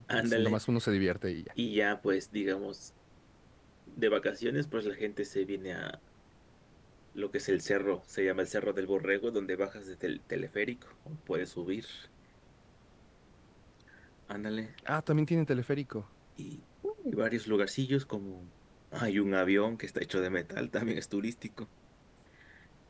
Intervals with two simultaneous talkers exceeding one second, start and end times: none

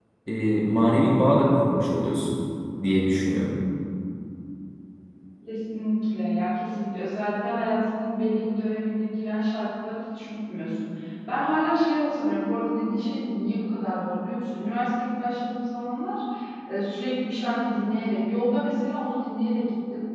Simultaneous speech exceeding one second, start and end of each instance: none

